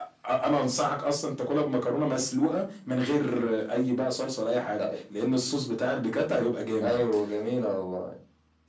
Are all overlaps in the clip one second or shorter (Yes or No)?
Yes